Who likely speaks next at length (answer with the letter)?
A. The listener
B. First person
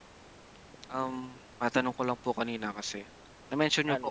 B